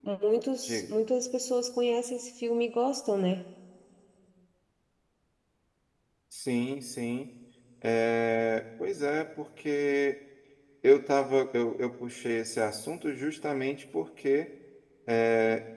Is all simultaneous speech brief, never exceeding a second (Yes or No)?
Yes